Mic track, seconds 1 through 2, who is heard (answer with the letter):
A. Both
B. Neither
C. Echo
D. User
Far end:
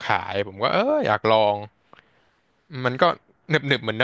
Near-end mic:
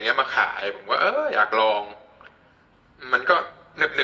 C